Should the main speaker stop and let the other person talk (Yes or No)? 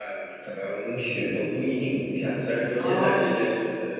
No